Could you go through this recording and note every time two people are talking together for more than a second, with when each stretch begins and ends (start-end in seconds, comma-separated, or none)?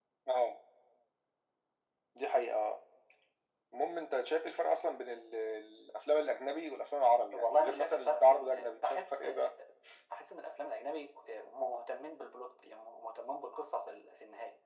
7.3-9.3